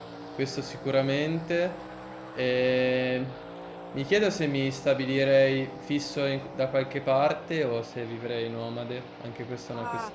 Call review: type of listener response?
taking over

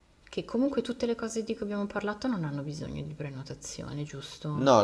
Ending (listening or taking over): taking over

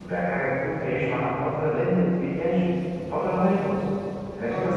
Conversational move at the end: listening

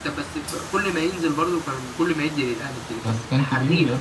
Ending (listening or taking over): taking over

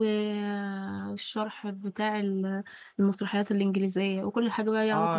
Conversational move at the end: taking over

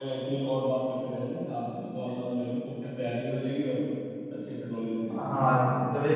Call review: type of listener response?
taking over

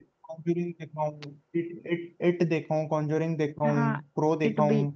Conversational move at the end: taking over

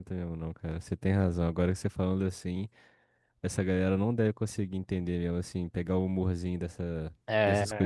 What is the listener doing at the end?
taking over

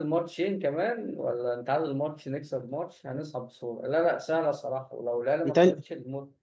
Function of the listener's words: listening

